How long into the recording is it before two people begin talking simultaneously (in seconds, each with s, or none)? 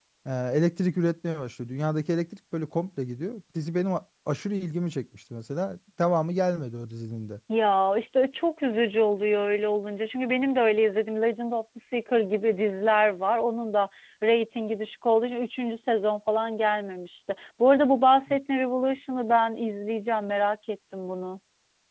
none